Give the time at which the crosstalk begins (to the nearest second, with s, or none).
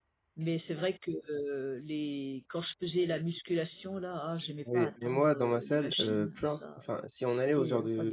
5 s